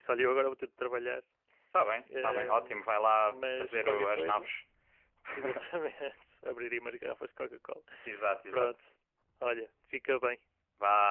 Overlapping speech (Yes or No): Yes